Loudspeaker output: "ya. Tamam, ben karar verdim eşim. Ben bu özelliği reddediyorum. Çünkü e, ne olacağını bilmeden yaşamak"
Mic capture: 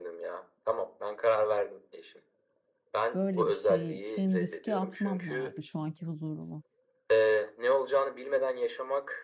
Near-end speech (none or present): present